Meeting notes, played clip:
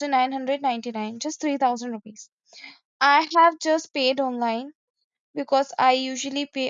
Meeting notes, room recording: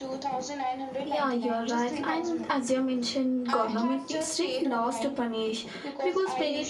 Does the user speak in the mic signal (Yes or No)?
Yes